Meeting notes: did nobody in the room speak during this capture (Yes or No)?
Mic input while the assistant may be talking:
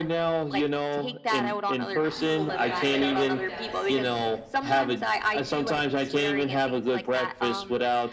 No